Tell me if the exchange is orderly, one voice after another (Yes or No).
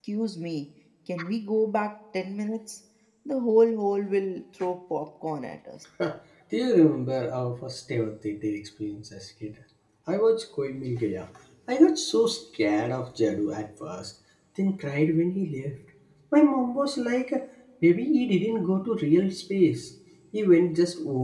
Yes